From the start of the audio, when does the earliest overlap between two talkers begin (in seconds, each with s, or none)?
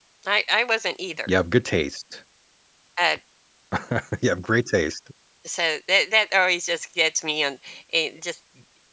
none